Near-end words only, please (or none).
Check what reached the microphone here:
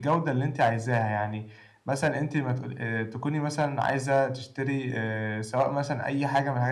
none